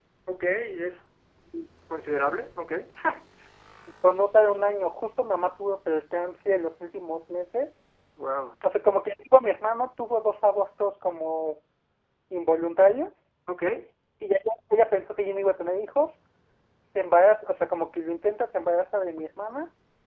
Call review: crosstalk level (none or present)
none